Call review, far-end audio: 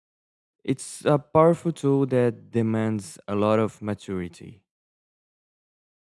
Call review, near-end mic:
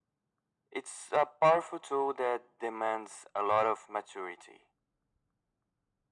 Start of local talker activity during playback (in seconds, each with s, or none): none